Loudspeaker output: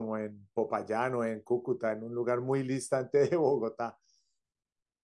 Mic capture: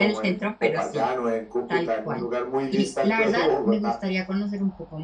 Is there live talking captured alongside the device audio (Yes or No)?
Yes